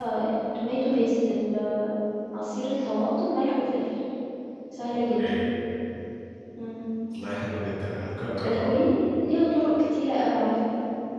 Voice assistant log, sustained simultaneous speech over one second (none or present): none